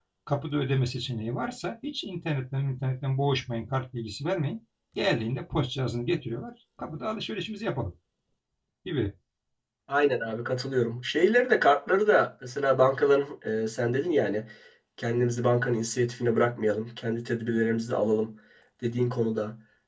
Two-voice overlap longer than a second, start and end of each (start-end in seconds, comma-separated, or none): none